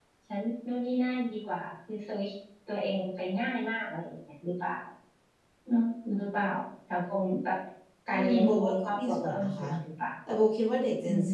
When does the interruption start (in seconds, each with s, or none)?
8.1 s